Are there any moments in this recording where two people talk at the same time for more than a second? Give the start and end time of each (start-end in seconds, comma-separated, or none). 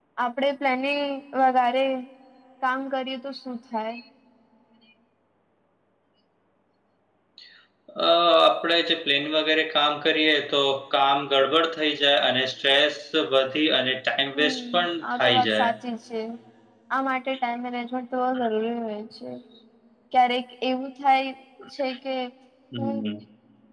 14.4-15.7